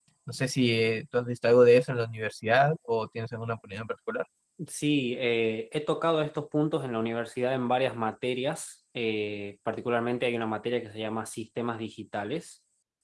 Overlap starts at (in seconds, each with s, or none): none